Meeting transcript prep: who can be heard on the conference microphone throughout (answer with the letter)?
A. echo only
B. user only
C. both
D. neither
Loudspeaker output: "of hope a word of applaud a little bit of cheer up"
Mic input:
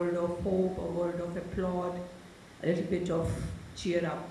A